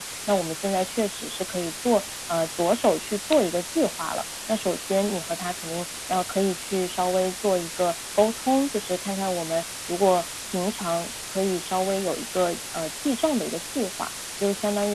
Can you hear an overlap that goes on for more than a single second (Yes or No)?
No